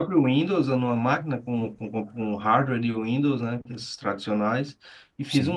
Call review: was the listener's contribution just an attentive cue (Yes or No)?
Yes